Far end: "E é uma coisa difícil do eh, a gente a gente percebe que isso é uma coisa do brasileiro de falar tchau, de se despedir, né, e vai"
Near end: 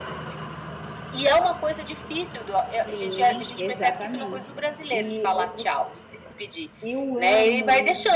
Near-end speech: present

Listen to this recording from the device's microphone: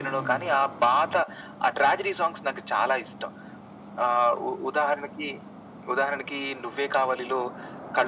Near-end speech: none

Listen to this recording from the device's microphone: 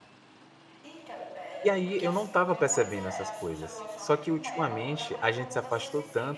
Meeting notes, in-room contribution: present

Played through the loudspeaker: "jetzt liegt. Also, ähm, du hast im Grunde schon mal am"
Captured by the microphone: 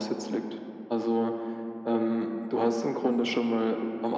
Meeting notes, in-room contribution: none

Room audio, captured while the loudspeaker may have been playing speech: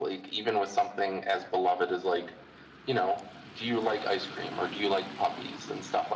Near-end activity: none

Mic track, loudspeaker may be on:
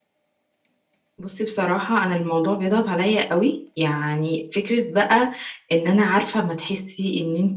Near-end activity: present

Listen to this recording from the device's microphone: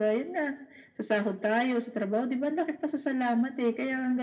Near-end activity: none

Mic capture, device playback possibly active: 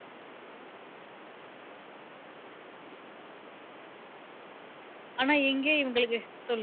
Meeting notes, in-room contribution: present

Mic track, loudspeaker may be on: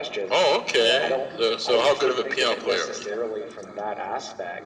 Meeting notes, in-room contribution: present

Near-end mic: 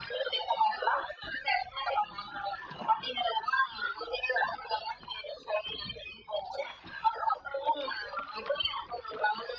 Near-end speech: none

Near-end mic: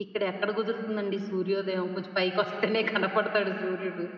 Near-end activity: present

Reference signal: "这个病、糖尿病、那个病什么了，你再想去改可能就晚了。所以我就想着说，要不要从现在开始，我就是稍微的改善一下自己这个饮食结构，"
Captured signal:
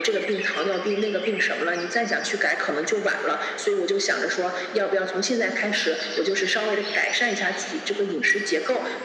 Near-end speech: none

